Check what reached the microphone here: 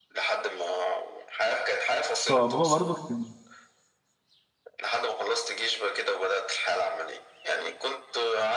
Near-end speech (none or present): present